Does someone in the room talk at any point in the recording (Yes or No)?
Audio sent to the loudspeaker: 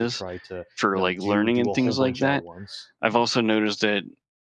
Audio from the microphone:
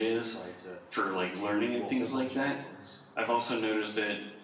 No